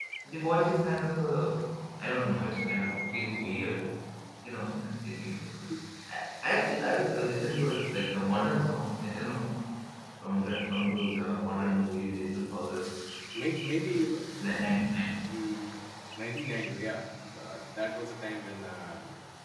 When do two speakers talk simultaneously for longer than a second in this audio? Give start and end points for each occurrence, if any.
none

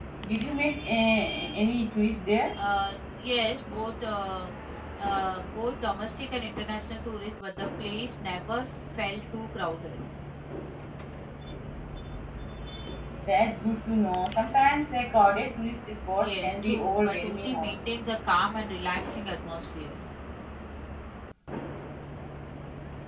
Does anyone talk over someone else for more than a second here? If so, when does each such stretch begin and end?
16.2-17.8

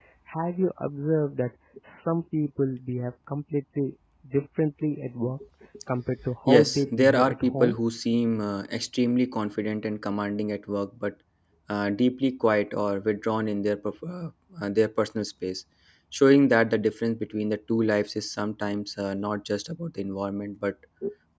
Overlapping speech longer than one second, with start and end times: 6.5-7.8

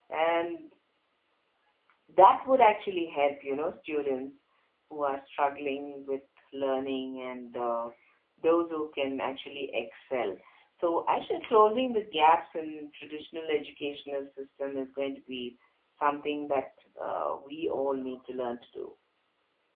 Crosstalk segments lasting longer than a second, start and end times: none

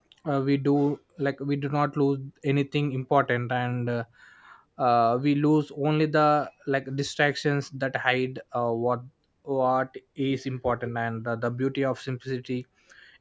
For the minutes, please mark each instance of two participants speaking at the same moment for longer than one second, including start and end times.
none

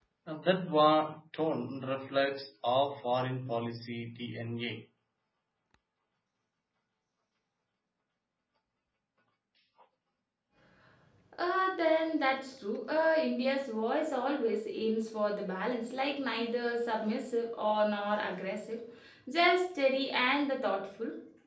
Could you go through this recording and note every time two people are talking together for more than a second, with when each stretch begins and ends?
none

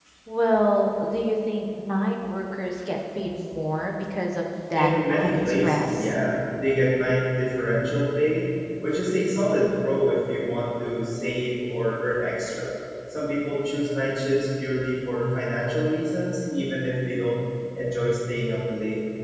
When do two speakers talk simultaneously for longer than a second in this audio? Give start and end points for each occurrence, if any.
4.7-6.1

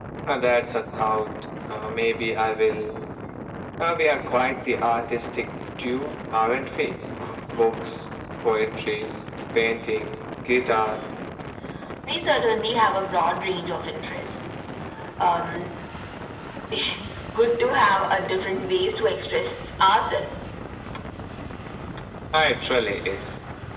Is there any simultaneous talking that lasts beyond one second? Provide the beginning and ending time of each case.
none

